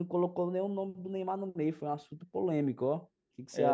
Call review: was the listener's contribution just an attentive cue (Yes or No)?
No